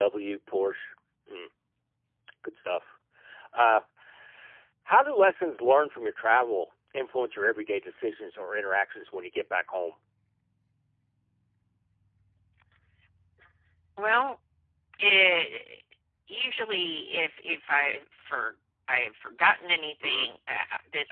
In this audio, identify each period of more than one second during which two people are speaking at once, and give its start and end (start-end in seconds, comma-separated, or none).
none